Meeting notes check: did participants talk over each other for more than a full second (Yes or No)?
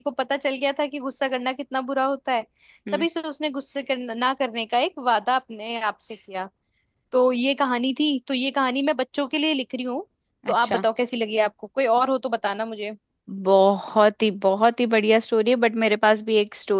No